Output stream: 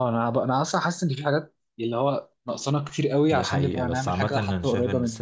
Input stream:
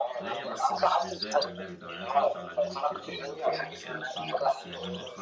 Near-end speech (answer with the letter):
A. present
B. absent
A